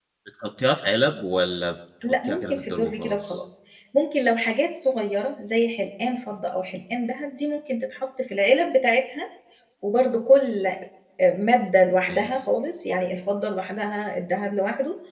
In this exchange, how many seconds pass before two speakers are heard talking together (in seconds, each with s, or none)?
2.0 s